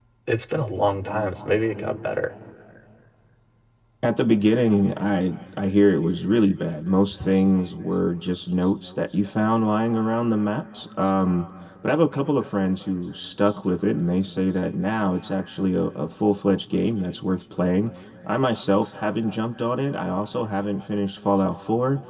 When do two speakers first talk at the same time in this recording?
none

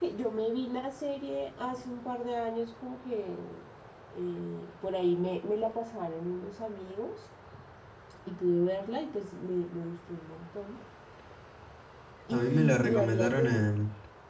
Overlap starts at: 12.3 s

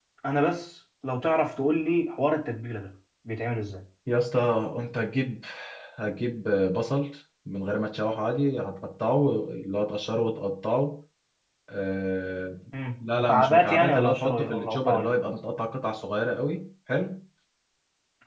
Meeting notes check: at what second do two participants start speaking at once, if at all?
13.1 s

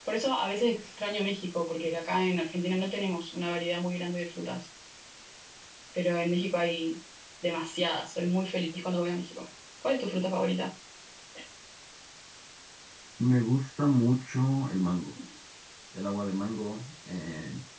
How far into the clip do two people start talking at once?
none

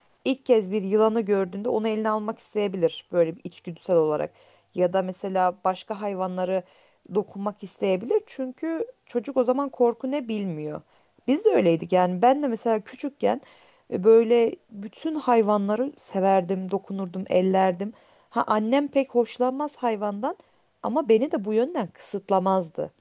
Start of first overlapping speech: none

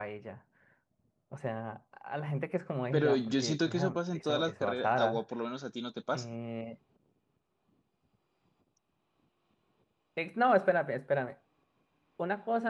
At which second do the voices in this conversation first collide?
2.9 s

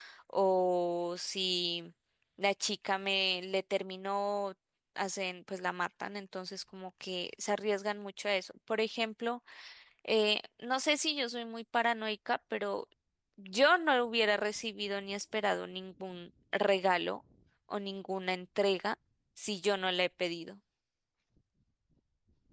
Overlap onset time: none

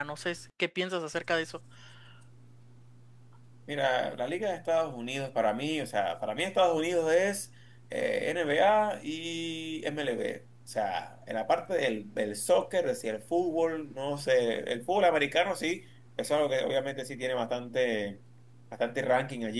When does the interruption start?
none

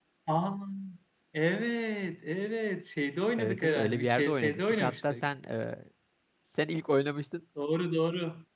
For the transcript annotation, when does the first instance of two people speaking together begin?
3.4 s

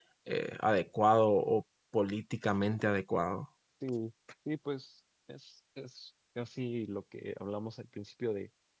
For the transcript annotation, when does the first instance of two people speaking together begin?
none

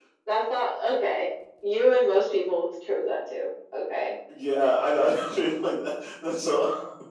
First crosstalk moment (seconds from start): none

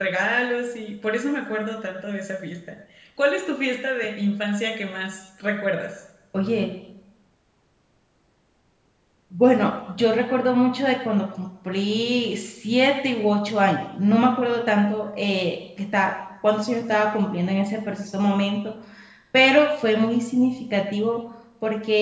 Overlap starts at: none

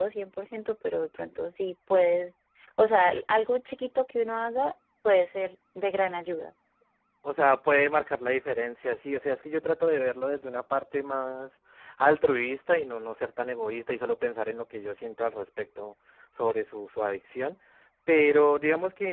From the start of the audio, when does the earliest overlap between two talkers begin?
none

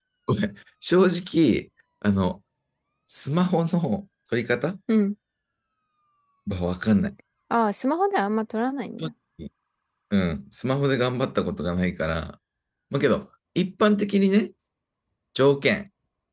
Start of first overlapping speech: none

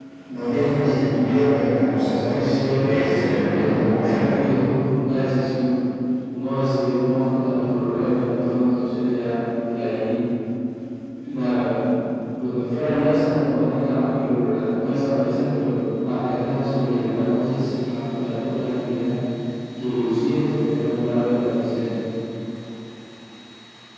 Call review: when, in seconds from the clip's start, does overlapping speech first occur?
2.2 s

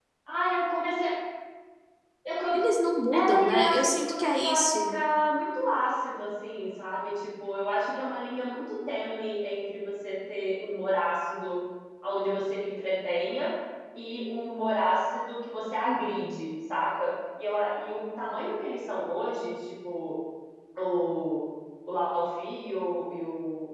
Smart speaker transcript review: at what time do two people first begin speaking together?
3.1 s

